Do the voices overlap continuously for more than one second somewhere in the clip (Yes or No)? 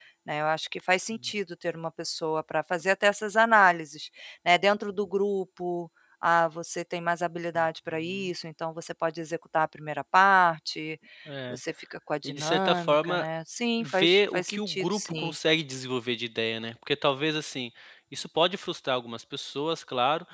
Yes